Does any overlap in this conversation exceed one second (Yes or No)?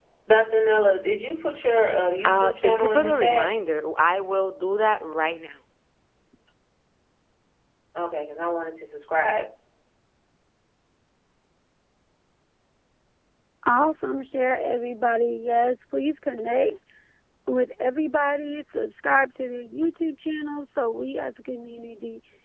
Yes